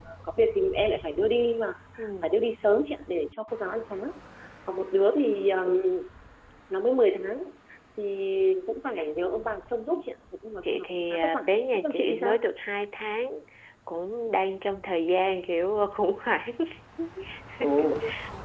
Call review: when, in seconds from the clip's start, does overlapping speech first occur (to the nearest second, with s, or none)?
11 s